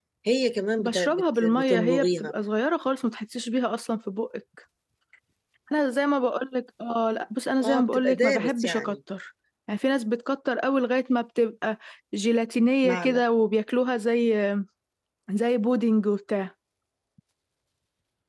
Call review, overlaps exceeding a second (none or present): present